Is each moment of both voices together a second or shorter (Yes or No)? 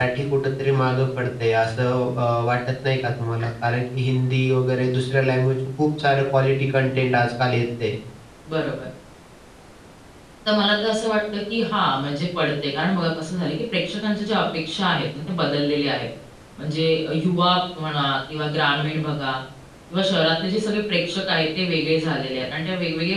Yes